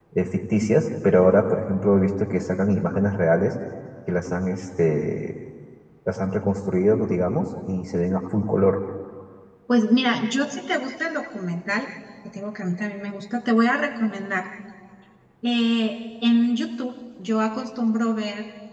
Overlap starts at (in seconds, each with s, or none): none